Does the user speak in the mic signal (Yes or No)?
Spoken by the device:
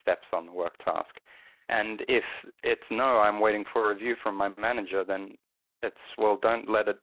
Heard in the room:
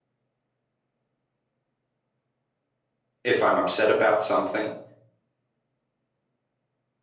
Yes